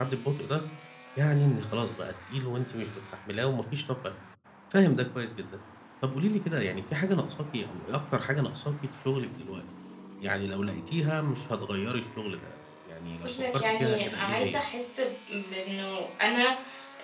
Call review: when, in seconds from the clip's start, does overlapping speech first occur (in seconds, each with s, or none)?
13.2 s